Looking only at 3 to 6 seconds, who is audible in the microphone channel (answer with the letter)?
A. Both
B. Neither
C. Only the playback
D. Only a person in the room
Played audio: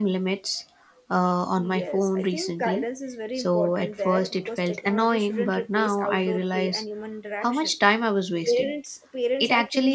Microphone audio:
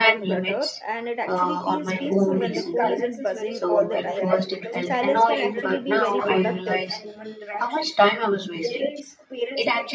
A